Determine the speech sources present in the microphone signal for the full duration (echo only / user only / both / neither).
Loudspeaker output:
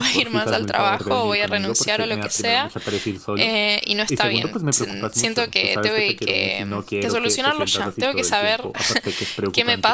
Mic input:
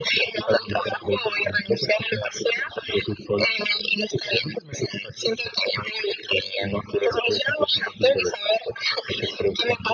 echo only